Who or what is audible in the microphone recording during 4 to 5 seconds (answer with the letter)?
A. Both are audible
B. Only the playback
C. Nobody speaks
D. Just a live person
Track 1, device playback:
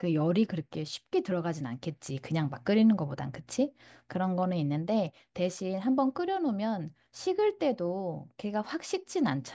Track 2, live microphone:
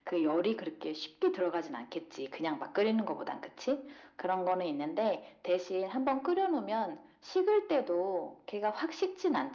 B